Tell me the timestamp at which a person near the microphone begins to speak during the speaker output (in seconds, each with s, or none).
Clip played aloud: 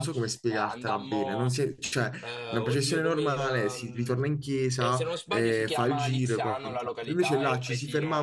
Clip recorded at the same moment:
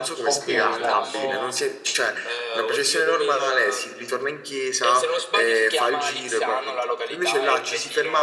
0.3 s